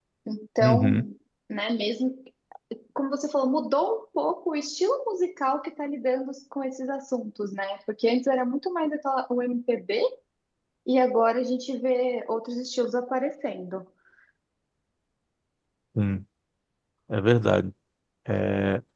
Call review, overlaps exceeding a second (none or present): none